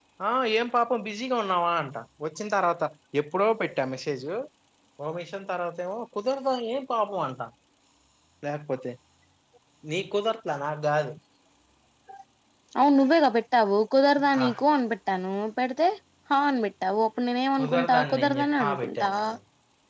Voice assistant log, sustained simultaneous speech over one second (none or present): present